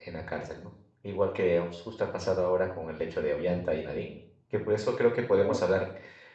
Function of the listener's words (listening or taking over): listening